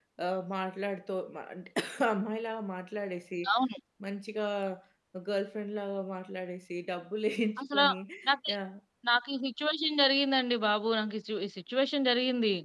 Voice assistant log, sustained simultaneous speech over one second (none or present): none